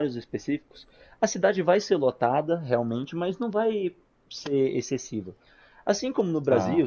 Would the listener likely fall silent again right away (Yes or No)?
Yes